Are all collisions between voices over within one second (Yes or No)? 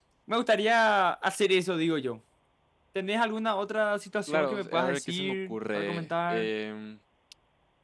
No